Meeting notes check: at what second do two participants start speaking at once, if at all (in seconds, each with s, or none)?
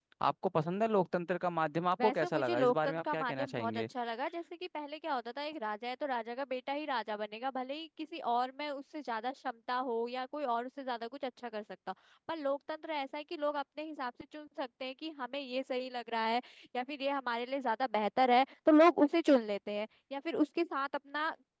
2.0 s